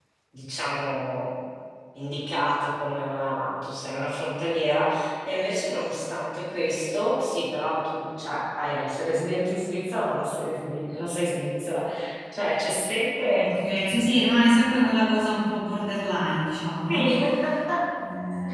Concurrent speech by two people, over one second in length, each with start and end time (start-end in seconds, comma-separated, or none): none